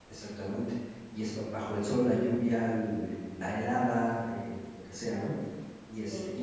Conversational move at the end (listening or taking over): listening